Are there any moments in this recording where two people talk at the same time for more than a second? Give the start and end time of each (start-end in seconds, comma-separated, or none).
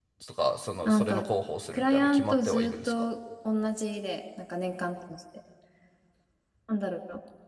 1.7-3.0